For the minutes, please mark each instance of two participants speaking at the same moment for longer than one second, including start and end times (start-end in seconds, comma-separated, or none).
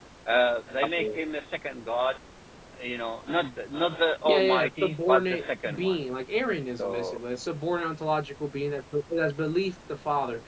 4.2-6.0